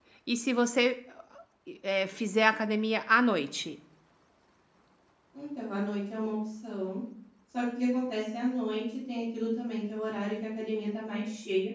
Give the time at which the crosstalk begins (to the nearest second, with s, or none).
none